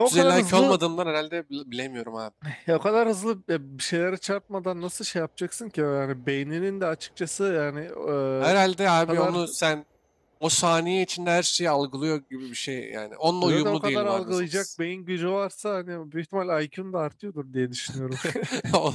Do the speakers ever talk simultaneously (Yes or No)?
Yes